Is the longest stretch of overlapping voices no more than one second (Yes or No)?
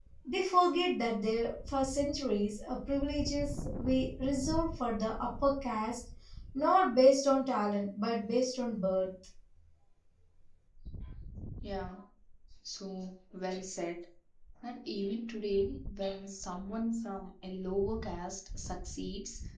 Yes